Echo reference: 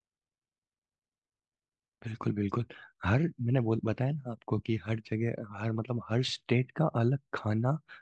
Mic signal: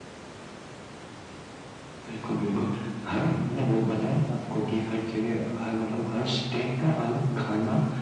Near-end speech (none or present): none